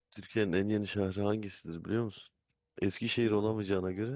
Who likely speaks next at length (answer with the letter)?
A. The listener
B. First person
B